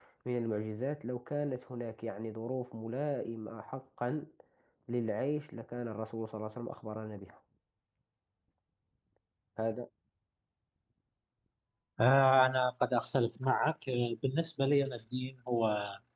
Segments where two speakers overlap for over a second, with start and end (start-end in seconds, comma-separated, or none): none